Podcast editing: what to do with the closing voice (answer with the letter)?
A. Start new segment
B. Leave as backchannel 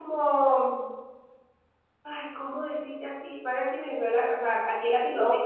A